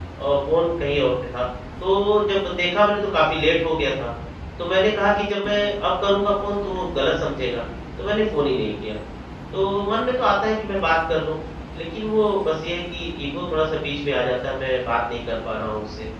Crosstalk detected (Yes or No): No